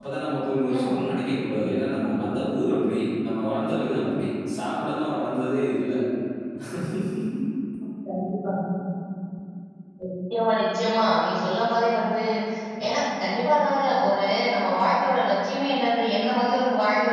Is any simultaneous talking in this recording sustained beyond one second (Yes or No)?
No